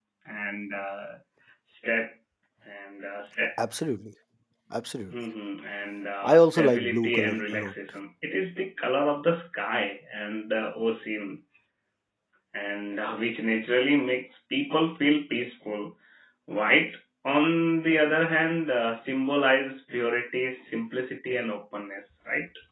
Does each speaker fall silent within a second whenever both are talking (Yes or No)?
No